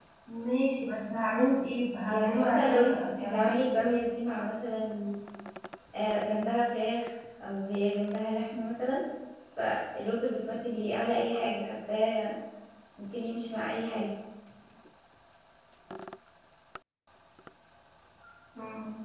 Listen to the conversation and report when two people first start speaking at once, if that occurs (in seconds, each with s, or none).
2.1 s